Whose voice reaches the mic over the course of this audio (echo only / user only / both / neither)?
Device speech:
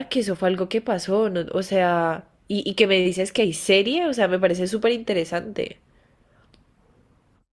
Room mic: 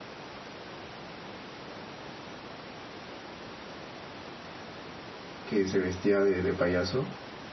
user only